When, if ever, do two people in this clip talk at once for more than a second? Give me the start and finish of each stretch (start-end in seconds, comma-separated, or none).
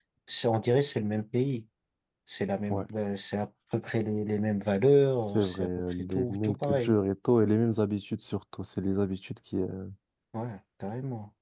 5.3-6.9